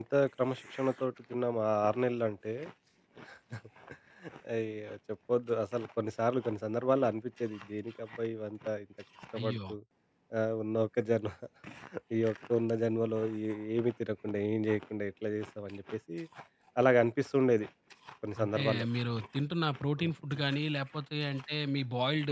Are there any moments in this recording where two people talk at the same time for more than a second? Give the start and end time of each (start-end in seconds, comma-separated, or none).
none